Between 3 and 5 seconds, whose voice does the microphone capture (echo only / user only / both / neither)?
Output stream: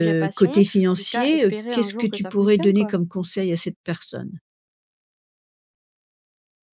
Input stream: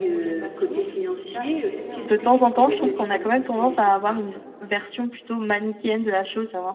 both